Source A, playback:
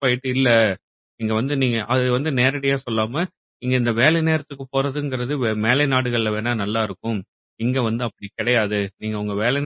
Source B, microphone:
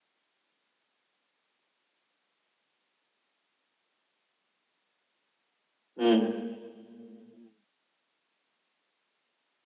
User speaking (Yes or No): Yes